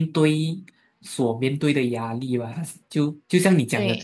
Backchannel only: Yes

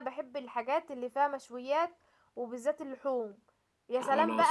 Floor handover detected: No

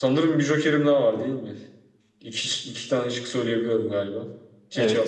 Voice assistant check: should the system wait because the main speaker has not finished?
No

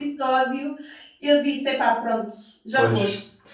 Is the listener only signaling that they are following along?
No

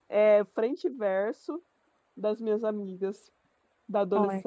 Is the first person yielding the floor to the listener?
Yes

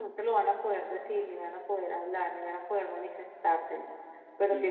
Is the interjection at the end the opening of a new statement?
No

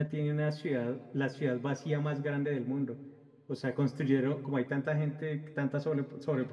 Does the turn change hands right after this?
No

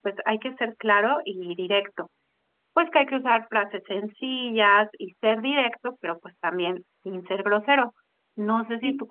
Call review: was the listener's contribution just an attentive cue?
Yes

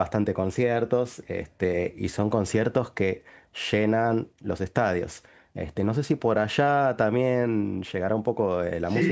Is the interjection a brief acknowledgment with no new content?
No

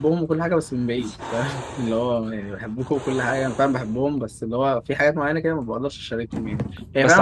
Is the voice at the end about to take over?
Yes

